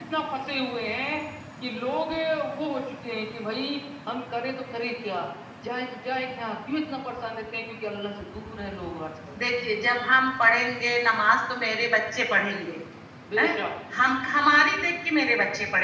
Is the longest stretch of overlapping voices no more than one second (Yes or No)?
Yes